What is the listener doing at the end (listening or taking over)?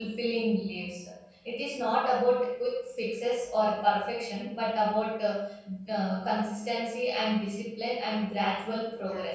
taking over